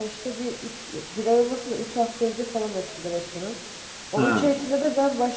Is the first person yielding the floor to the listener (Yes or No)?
No